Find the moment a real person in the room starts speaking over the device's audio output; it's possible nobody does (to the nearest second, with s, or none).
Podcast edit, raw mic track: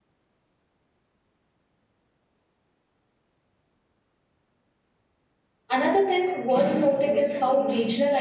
6 s